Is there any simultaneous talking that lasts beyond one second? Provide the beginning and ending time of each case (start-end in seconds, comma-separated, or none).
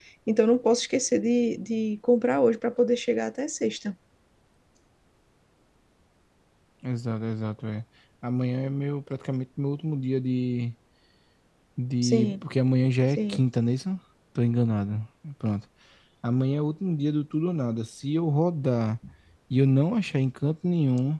none